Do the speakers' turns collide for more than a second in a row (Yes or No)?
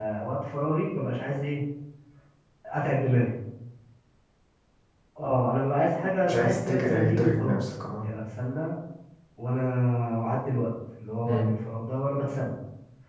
Yes